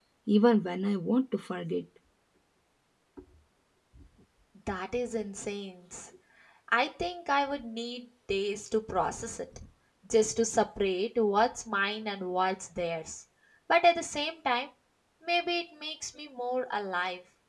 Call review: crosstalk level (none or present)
none